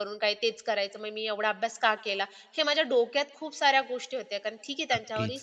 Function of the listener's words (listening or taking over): taking over